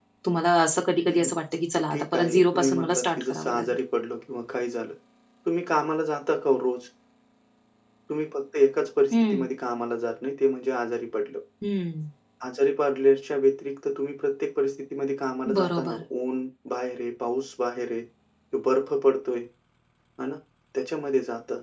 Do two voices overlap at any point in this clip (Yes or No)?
Yes